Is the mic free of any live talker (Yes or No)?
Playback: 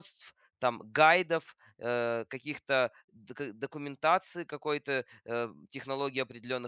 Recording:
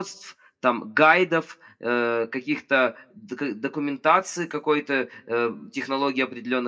Yes